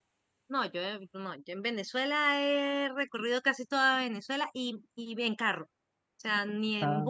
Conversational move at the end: listening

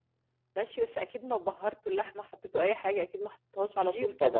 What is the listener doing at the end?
taking over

